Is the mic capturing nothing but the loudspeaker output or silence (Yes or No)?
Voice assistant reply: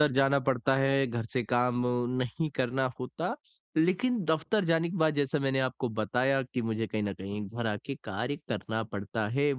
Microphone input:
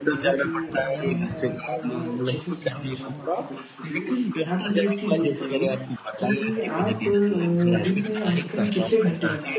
No